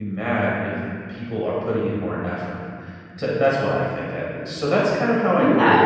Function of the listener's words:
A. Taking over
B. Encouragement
B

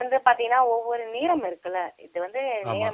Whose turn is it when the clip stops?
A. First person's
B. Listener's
A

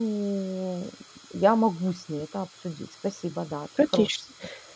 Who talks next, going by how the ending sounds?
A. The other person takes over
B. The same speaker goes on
A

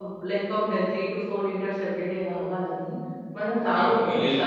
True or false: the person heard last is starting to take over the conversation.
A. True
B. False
A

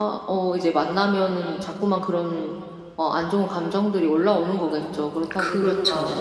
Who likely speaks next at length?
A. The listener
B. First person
A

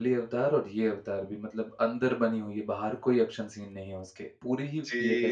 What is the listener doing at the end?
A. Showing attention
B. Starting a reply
B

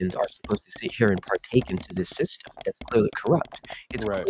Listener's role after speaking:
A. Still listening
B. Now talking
A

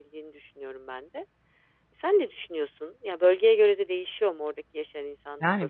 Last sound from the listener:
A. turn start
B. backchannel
A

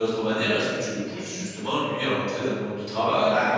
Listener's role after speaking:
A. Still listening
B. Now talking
B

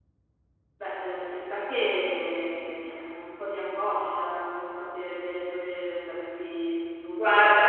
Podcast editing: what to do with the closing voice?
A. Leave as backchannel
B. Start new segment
B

